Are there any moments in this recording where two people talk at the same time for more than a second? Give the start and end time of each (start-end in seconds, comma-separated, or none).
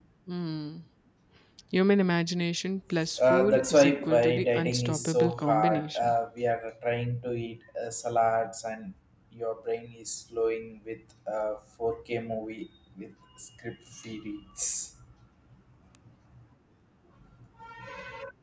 3.3-6.1